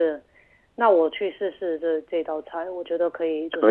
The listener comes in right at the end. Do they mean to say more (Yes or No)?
Yes